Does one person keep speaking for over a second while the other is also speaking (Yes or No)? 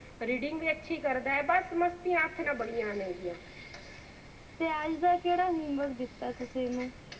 No